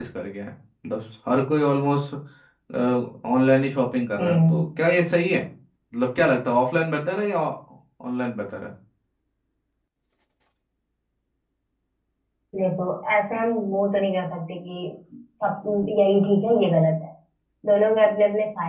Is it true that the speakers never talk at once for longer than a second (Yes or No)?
Yes